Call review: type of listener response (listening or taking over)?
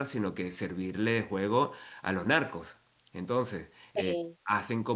listening